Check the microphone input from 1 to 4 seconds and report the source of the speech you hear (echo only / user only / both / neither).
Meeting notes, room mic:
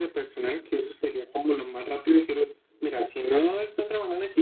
echo only